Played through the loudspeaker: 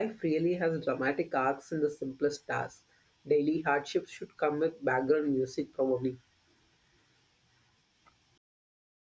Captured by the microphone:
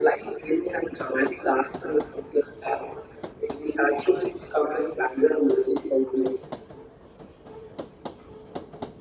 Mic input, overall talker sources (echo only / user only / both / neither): echo only